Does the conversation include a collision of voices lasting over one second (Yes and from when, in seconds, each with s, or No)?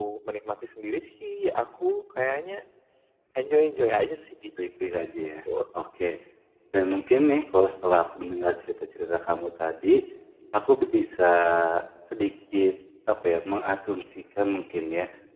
No